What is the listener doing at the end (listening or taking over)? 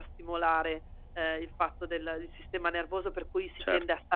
listening